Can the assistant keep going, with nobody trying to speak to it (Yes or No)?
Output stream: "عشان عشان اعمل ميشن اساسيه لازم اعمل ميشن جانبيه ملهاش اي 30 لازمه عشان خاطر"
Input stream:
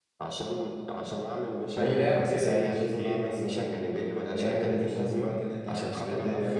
No